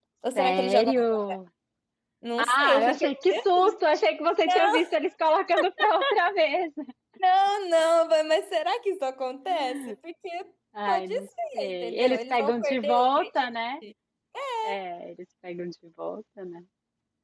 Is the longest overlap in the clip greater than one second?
Yes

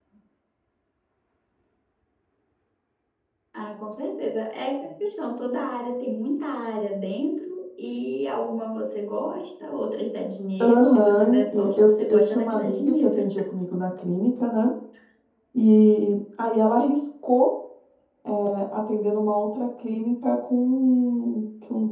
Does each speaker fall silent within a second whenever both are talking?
No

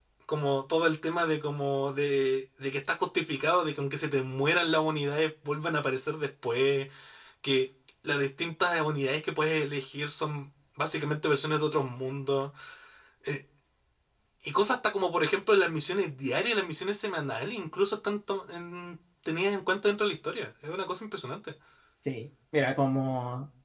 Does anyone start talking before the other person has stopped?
No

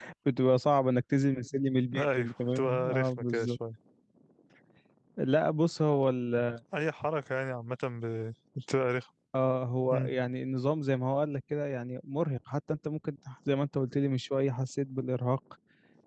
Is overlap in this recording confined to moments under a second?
No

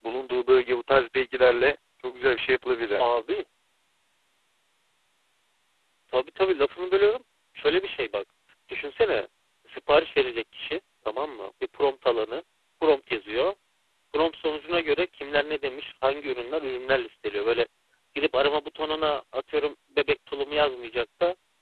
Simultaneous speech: No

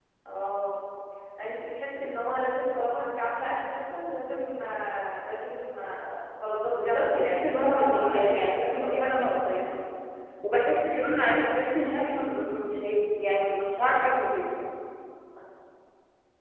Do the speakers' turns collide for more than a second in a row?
Yes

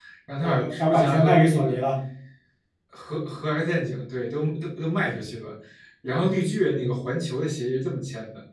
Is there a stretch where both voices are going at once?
Yes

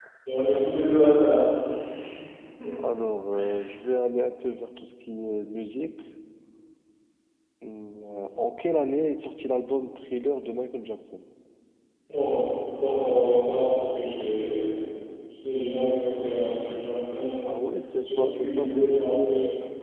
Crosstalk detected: Yes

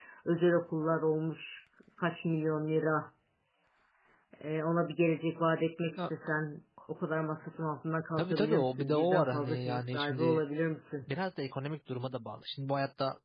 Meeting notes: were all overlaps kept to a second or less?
No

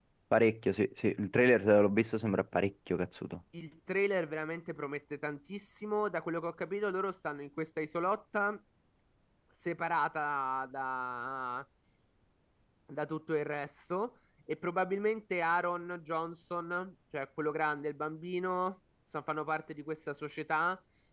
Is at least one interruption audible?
No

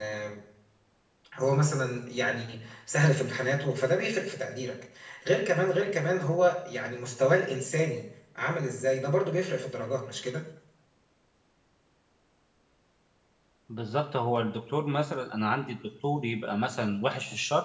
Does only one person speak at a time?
Yes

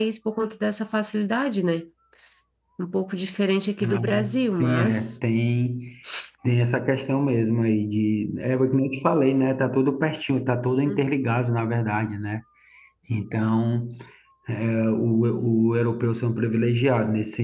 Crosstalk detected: Yes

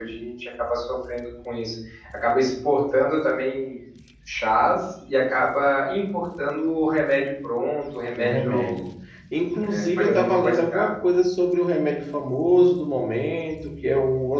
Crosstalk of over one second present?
Yes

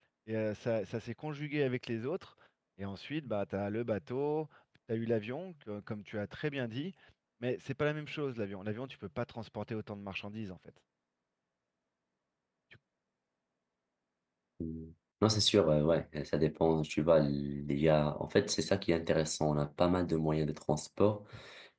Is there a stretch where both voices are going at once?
No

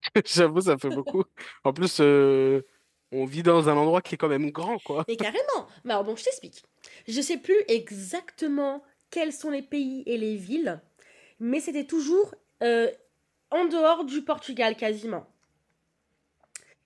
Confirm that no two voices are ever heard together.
Yes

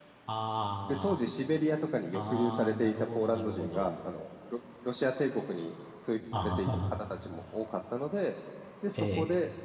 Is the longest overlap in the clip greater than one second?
Yes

